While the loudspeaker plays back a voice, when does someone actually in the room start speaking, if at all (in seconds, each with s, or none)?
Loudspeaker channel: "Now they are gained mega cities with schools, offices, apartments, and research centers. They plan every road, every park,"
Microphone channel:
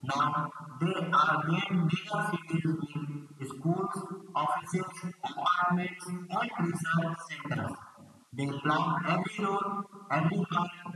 none